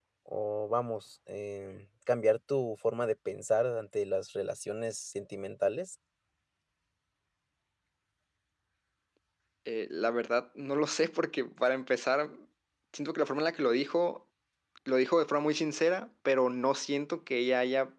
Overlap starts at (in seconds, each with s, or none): none